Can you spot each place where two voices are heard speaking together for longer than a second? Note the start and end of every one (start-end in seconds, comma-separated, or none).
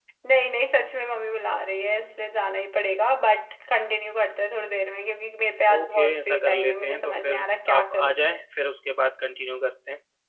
5.8-8.2